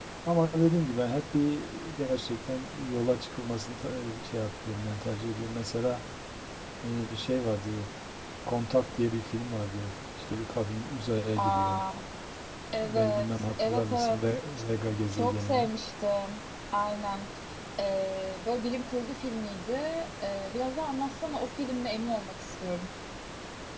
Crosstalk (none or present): present